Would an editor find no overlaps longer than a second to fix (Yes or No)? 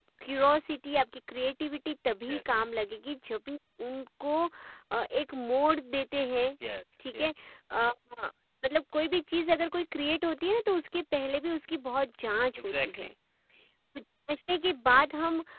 Yes